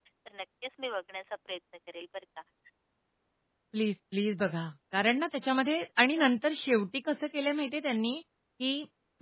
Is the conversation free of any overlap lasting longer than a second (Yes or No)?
Yes